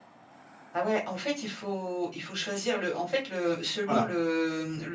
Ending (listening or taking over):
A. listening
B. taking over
A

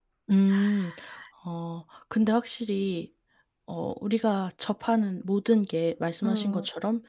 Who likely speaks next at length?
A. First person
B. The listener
A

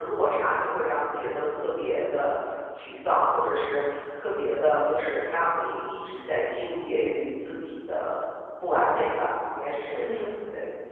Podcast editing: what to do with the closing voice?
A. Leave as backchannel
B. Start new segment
B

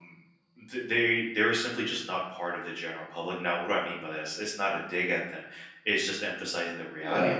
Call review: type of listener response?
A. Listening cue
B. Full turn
A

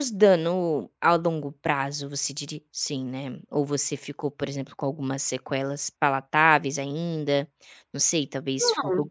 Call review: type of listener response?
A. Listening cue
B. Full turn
A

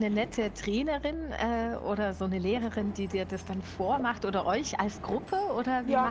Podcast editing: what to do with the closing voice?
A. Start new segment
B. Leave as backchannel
A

